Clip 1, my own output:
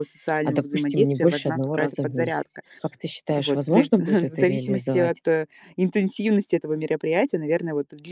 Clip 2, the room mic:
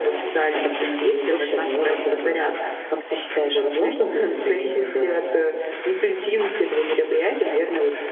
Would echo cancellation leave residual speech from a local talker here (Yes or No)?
No